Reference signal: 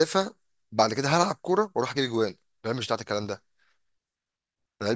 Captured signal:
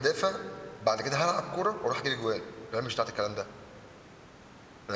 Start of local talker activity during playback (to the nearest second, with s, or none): none